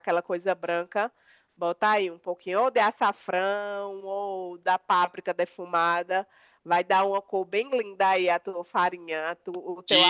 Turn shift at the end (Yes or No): Yes